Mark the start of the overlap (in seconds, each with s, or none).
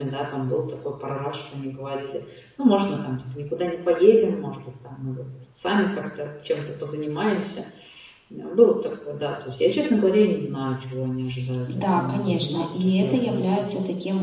11.7 s